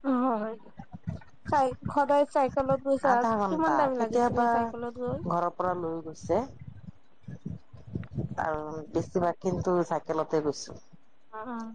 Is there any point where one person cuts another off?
Yes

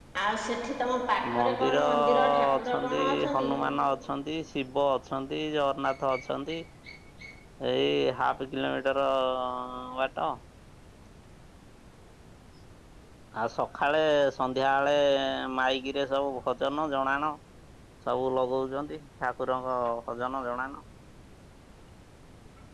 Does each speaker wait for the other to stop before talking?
No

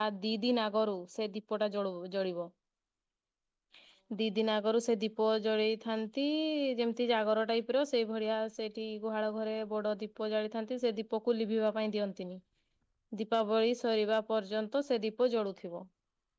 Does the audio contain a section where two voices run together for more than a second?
No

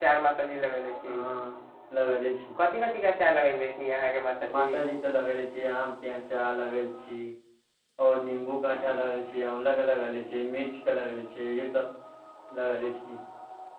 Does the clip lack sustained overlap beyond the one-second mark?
Yes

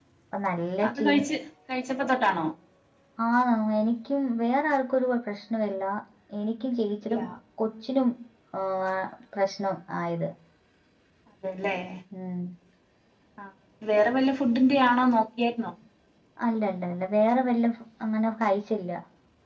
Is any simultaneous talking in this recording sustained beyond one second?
No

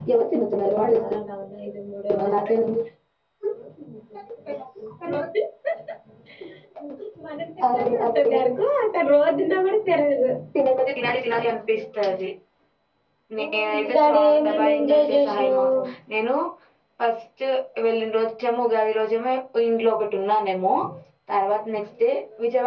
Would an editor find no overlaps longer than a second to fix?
No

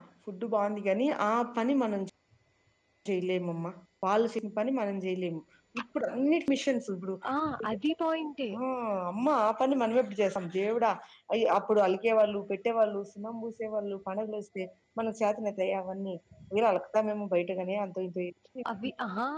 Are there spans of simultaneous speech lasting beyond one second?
No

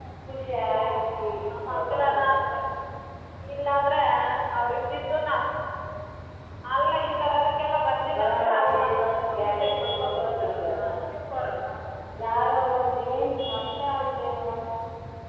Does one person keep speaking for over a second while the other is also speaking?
Yes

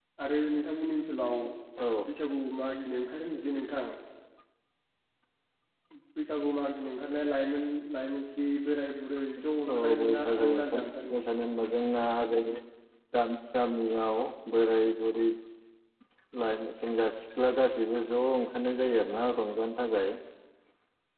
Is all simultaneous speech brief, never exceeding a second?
No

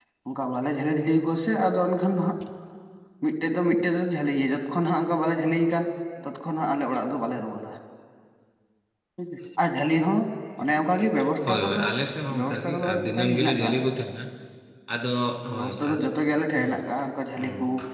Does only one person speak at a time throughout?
No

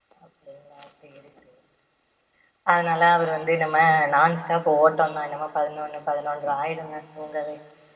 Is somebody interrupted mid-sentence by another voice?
No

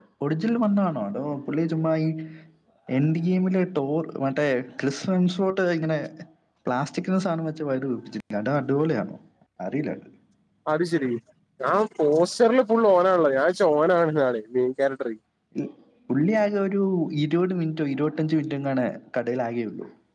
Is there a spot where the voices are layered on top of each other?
No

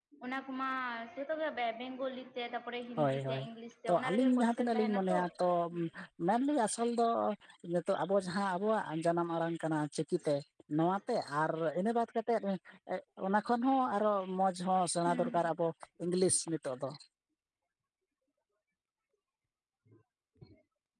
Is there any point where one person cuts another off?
Yes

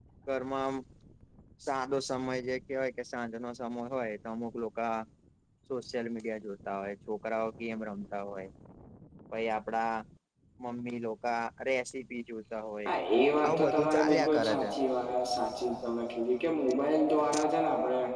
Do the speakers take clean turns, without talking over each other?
No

